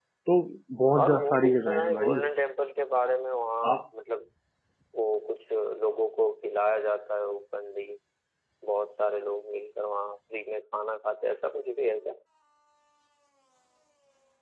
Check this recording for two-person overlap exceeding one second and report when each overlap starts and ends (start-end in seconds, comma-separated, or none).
1.0-2.2